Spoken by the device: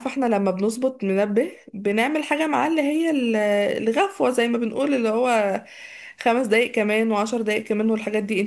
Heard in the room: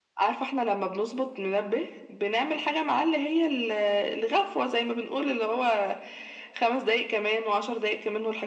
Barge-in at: none

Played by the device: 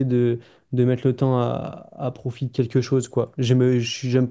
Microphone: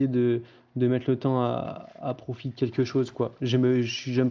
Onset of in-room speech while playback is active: none

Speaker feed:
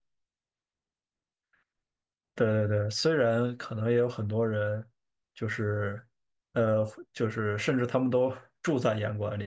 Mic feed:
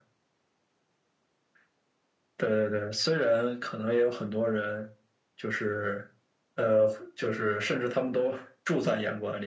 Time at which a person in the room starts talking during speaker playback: none

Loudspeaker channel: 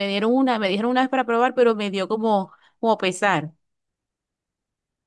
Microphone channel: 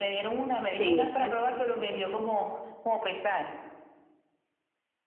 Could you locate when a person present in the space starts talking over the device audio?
0.8 s

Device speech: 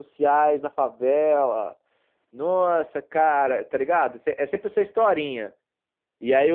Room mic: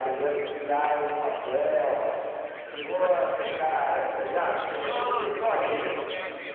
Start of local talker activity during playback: 2.5 s

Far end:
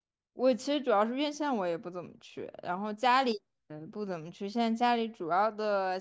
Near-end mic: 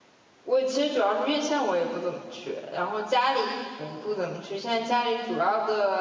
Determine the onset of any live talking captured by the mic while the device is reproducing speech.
none

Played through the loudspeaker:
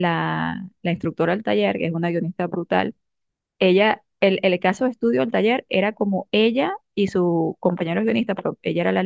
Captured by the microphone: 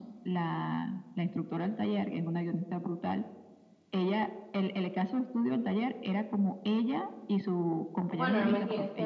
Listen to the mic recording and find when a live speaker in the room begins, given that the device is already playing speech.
8.1 s

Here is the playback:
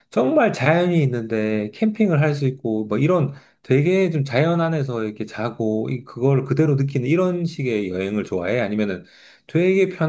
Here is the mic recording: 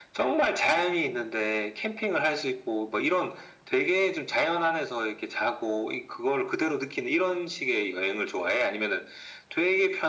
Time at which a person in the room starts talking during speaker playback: none

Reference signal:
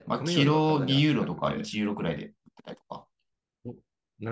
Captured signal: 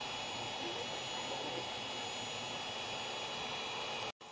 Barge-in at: none

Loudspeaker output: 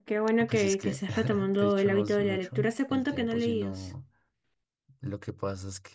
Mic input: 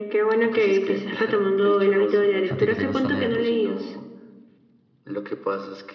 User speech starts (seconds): 2.5 s

